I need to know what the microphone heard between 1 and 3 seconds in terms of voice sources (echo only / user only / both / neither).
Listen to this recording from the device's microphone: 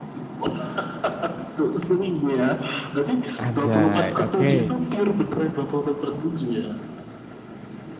echo only